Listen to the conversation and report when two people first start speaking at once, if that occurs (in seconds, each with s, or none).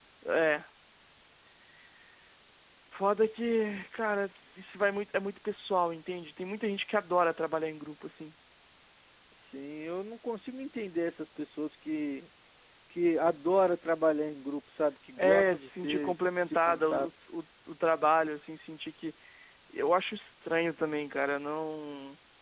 15.2 s